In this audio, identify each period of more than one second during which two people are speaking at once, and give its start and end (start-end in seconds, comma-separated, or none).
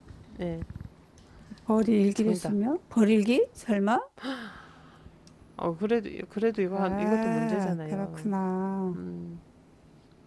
6.7-8.3